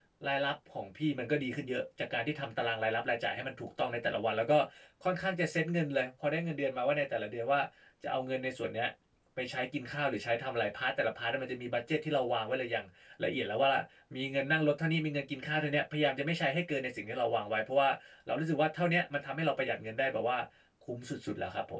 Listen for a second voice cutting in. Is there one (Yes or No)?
No